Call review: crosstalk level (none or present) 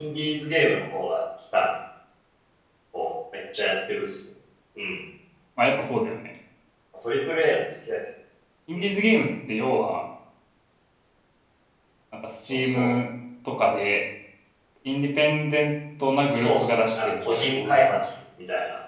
present